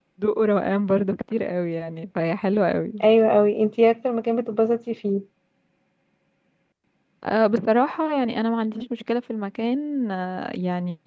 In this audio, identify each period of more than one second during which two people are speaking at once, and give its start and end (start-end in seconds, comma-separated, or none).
none